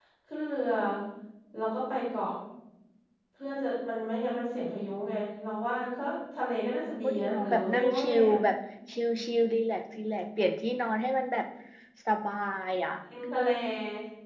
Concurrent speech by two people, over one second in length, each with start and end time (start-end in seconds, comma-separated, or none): 6.9-8.4